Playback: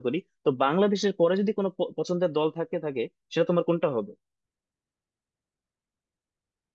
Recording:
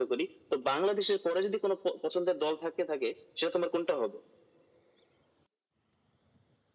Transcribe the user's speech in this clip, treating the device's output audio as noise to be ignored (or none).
none